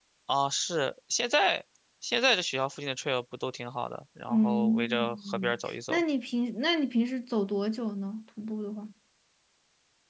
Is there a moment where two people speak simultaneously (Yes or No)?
Yes